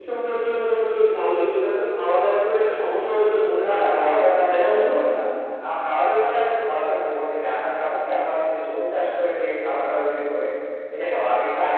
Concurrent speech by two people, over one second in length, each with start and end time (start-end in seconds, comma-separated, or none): 3.6-4.9